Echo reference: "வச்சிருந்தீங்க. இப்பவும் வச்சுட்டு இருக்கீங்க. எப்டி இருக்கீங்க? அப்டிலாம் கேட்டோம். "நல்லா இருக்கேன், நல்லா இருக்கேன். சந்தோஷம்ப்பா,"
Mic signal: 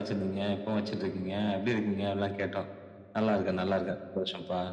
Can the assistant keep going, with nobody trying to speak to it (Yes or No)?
Yes